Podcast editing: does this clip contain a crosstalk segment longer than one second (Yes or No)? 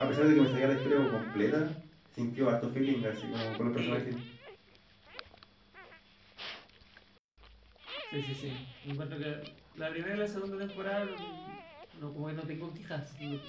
No